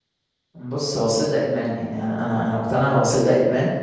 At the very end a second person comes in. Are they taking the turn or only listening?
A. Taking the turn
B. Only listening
B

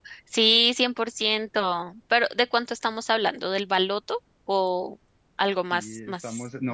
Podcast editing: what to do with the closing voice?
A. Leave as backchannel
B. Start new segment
B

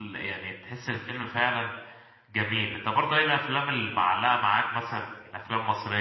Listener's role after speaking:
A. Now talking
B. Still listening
B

